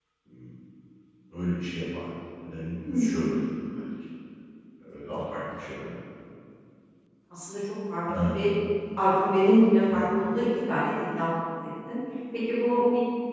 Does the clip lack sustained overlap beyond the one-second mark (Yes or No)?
Yes